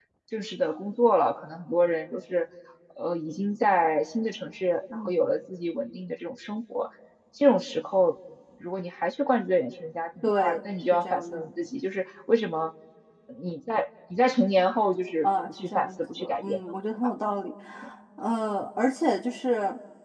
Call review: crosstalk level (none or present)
present